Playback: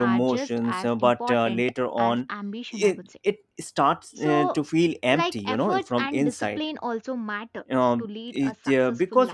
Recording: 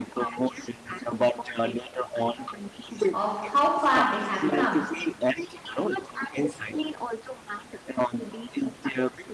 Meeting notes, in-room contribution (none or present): present